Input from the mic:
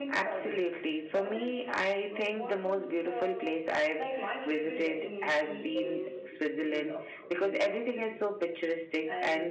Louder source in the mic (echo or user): user